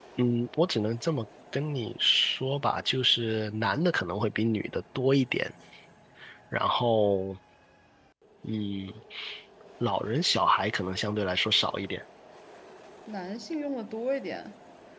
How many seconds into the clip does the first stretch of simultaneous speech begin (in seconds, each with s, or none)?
none